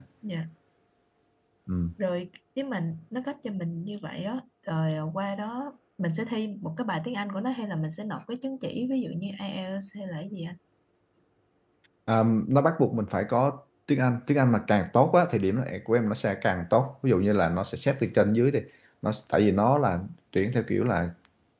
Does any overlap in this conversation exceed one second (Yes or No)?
No